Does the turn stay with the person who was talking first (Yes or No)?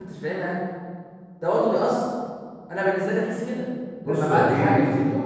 No